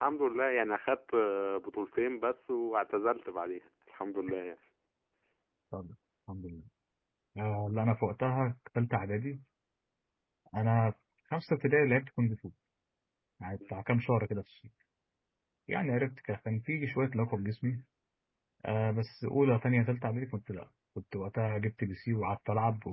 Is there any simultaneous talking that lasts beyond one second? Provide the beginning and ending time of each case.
none

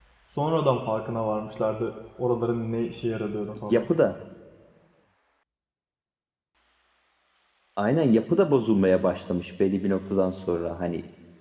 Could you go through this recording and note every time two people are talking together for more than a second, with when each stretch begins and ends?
none

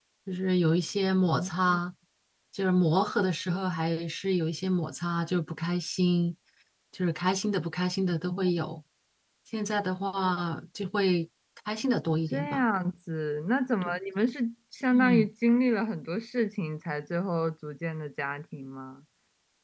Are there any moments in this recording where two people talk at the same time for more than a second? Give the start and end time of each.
none

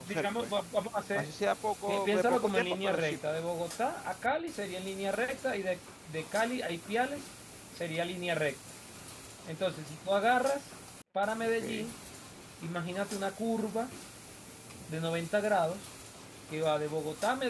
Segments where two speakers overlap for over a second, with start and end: 1.9-3.2

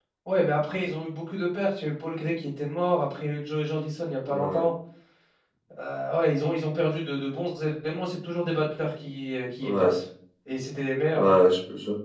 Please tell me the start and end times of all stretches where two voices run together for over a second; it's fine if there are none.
none

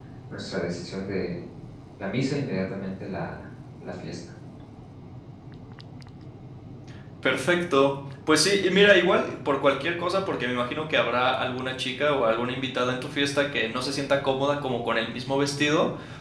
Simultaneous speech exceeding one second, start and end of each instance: none

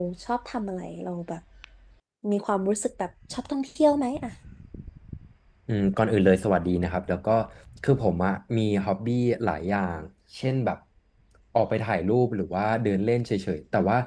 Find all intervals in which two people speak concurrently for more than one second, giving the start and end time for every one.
none

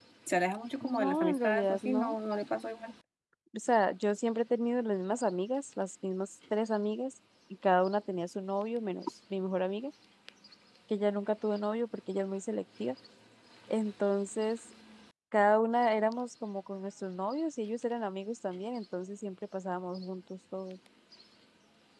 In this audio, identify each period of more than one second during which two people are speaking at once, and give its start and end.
0.8-2.2

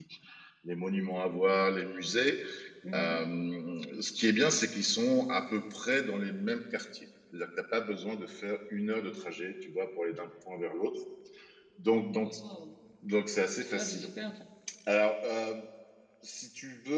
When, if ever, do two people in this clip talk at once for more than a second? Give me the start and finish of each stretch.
none

